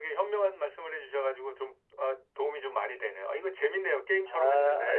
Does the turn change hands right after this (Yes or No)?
Yes